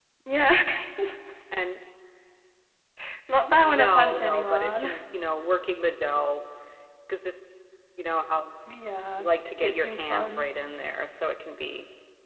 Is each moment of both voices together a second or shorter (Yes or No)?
No